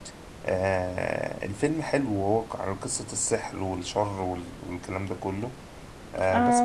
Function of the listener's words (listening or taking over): taking over